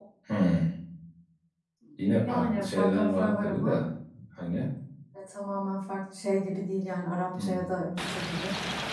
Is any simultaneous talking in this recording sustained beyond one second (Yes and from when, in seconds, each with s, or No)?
Yes, from 2.3 s